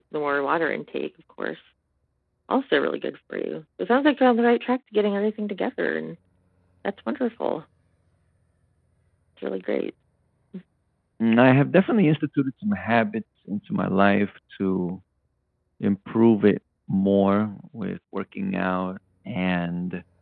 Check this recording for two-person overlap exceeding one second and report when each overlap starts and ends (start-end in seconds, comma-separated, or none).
none